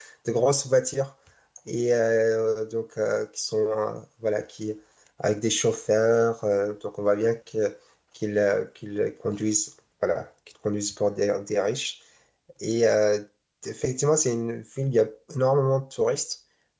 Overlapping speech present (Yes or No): No